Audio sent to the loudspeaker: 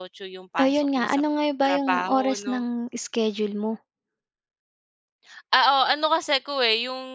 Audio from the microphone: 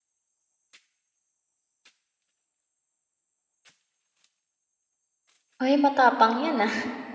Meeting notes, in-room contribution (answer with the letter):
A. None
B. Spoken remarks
B